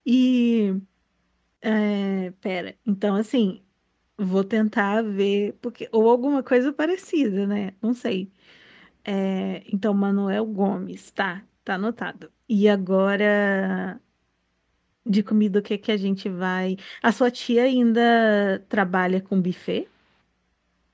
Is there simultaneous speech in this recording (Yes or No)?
No